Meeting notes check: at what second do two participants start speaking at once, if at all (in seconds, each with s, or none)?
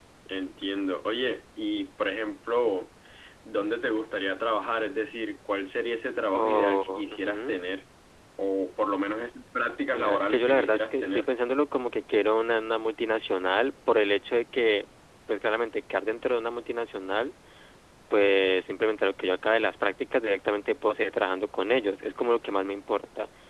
6.3 s